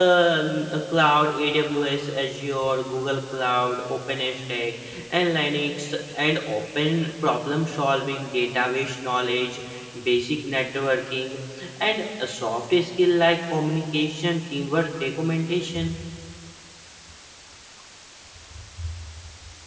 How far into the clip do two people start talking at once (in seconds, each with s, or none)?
none